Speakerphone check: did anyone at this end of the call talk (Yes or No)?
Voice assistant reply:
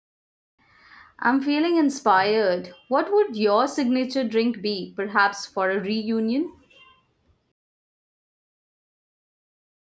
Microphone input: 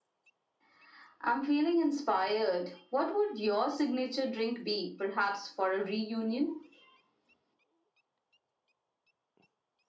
No